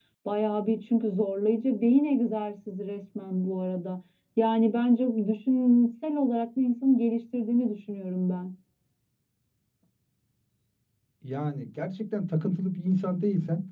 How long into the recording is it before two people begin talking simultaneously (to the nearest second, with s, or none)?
none